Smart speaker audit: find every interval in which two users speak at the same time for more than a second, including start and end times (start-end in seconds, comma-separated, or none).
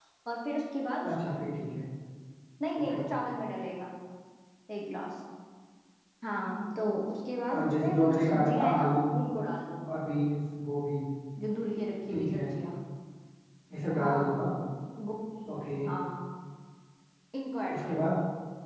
7.5-9.2